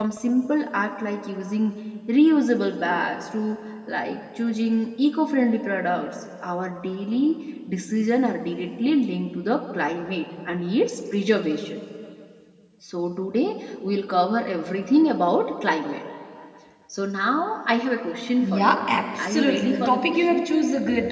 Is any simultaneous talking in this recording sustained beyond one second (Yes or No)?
Yes